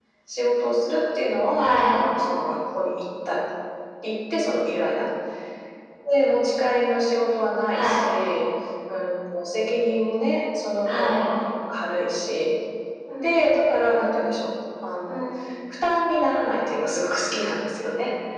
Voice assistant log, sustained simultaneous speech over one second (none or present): none